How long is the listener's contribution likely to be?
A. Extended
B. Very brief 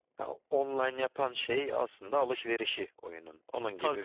A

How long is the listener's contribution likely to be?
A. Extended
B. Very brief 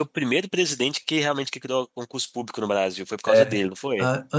A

